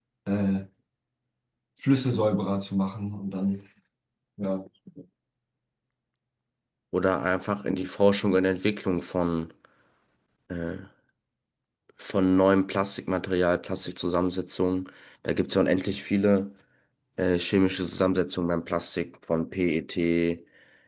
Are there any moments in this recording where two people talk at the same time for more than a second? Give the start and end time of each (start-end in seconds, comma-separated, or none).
none